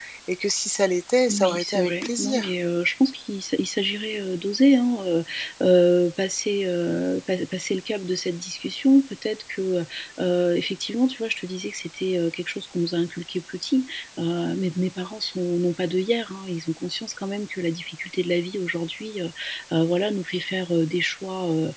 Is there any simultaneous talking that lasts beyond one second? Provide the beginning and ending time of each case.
1.3-2.5

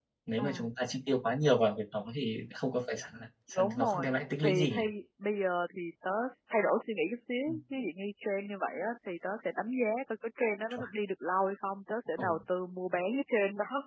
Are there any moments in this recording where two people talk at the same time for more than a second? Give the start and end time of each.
none

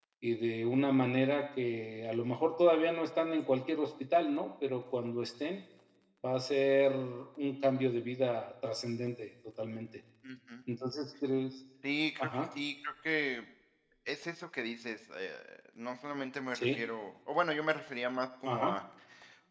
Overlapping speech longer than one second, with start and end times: none

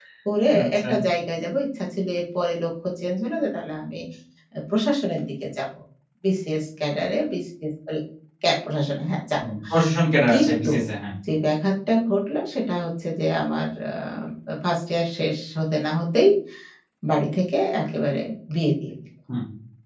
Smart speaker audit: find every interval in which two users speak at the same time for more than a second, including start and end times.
none

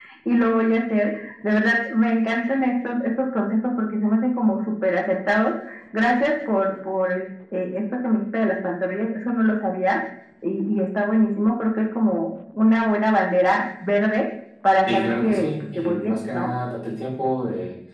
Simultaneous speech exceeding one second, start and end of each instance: 14.9-16.5

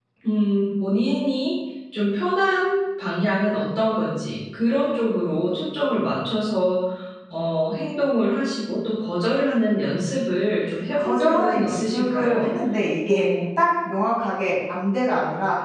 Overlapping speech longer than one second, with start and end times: 11.0-12.5

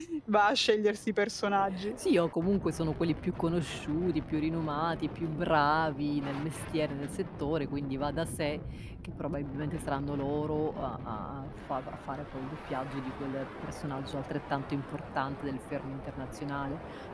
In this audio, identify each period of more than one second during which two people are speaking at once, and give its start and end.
none

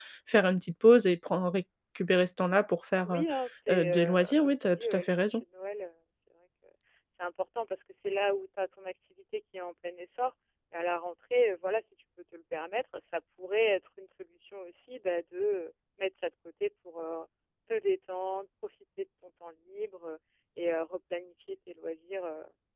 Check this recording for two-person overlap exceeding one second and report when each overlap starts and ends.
3.7-5.4

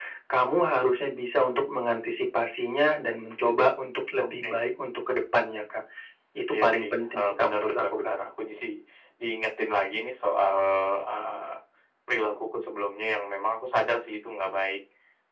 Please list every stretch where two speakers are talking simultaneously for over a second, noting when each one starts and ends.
6.5-8.2

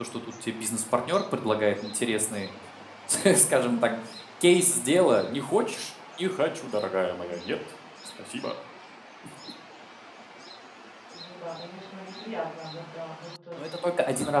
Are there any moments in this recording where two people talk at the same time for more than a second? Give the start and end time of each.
none

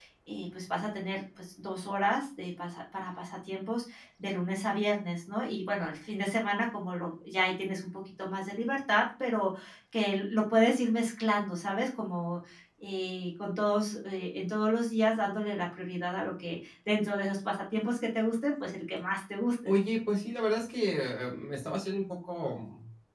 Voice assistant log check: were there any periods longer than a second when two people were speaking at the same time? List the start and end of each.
none

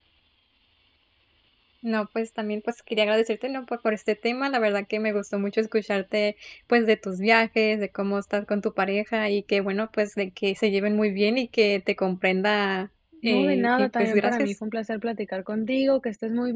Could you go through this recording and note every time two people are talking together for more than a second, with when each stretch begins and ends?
13.2-14.5

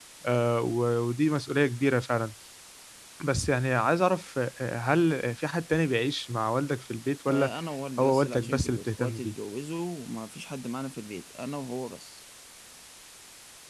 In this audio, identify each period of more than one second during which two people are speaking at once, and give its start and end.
8.0-9.3

